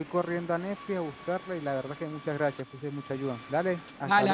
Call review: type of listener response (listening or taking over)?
taking over